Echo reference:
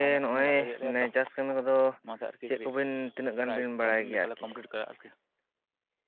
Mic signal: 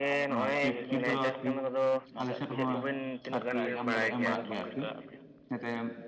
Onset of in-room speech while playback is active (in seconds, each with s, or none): 0.3 s